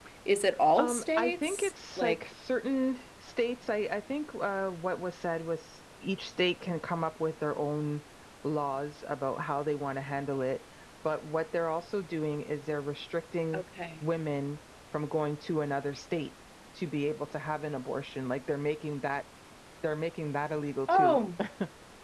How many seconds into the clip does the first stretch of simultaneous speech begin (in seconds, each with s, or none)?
0.8 s